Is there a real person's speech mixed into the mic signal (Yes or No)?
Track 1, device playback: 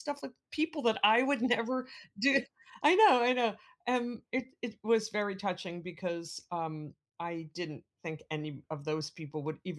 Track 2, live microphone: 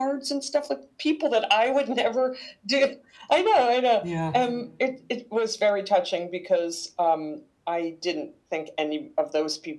Yes